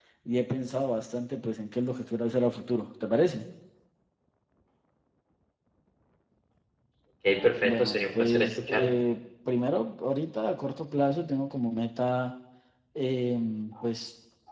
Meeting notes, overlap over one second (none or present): present